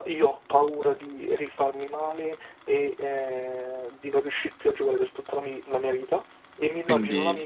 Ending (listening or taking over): listening